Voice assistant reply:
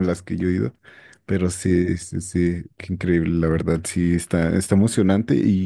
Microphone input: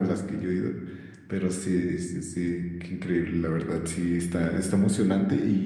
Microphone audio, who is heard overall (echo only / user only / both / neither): echo only